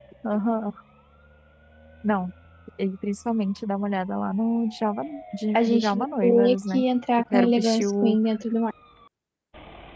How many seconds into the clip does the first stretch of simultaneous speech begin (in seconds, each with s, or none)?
5.5 s